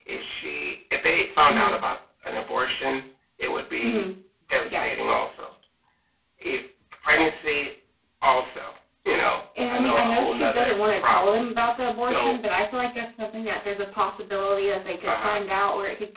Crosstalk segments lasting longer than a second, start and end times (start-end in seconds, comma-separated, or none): 9.7-11.4